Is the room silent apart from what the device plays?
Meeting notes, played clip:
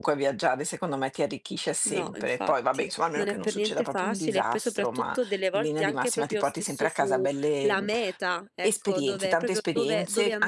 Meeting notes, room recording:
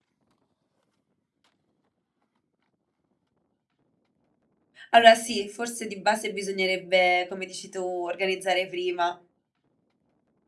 No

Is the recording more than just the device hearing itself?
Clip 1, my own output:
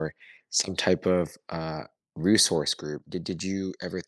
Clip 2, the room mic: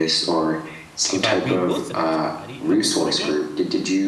Yes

